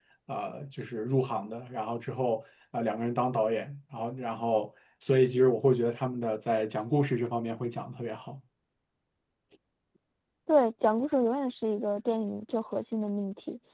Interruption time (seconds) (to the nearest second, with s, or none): none